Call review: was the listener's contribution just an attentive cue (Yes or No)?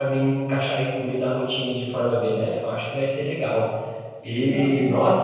Yes